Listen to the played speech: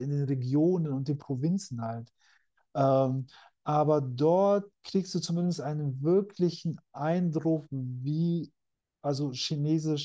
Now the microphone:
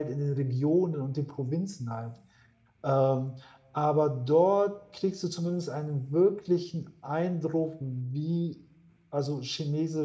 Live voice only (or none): none